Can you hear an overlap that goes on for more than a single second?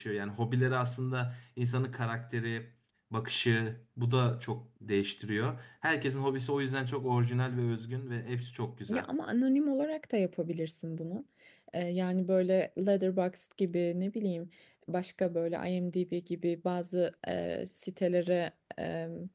No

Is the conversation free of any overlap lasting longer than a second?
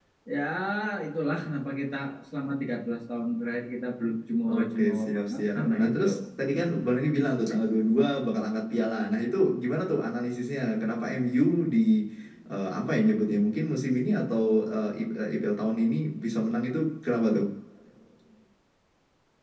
No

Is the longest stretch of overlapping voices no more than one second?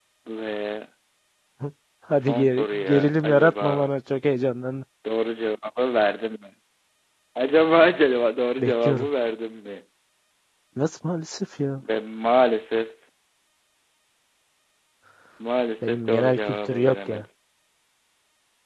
No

